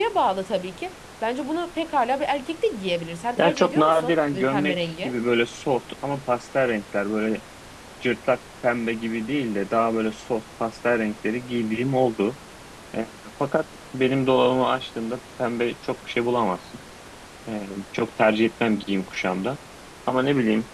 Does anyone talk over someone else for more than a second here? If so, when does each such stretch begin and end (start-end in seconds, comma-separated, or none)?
3.4-5.1